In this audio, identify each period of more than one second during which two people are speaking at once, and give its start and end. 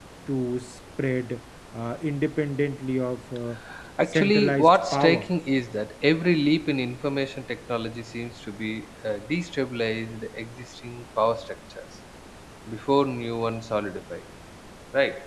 4.1-5.3

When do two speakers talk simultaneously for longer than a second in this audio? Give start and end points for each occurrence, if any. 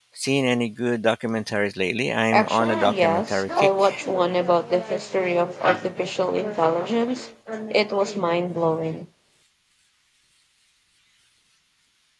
2.3-3.9

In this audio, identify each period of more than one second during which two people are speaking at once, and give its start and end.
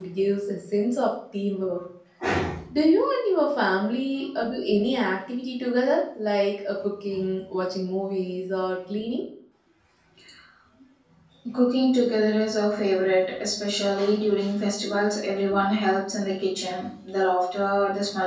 none

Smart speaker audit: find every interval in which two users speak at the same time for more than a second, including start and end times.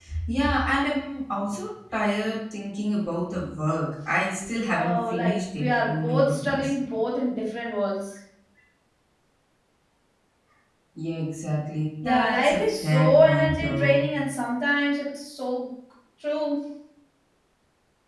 4.7-6.7, 12.0-14.0

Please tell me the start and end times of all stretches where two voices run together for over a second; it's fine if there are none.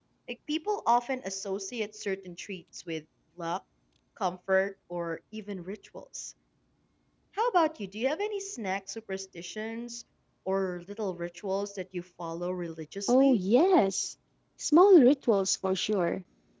none

